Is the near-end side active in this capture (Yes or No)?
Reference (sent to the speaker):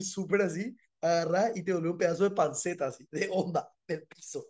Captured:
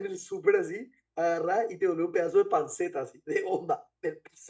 No